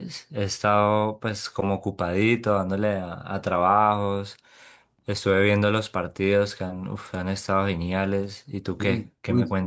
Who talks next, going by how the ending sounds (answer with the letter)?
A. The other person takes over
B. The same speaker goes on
A